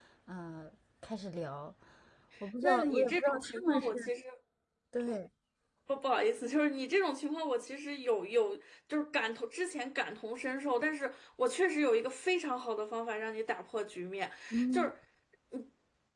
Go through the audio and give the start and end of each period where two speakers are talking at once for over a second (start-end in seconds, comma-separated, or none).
2.6-3.9